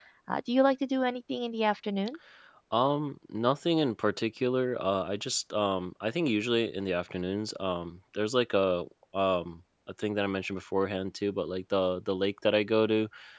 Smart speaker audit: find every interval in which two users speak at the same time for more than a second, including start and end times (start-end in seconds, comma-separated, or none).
none